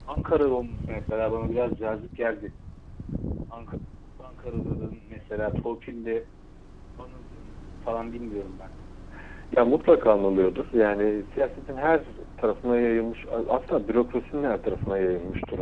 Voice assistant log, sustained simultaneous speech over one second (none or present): none